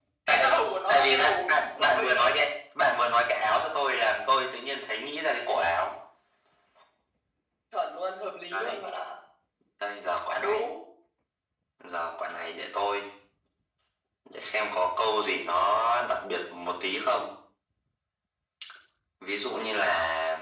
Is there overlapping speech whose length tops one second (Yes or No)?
Yes